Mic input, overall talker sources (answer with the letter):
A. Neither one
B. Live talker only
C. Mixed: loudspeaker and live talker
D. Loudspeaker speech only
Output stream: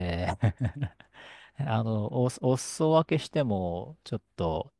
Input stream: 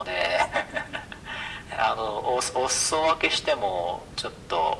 D